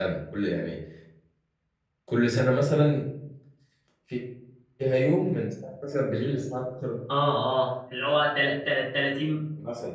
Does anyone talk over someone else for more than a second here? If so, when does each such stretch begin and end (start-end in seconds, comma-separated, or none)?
none